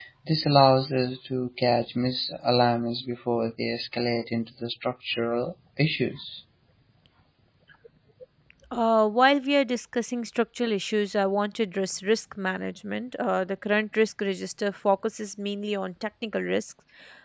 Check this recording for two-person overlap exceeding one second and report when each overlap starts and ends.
none

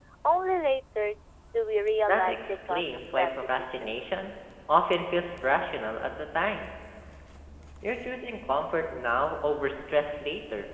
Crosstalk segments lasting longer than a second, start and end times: 2.1-4.0

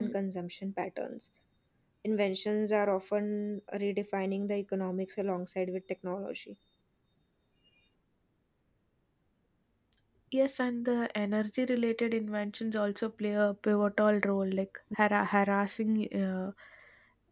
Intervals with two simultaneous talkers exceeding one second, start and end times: none

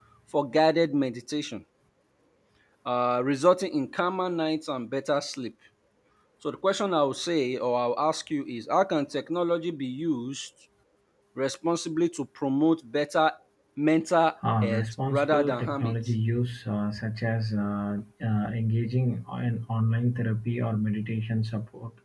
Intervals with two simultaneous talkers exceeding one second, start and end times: 14.6-15.9

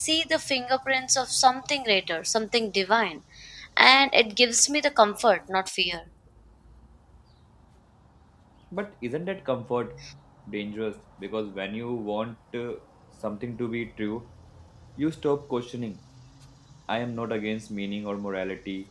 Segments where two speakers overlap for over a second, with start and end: none

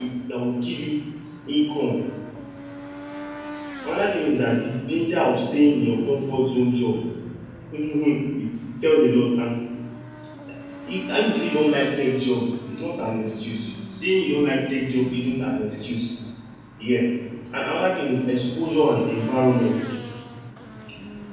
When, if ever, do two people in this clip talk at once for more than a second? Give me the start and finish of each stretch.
none

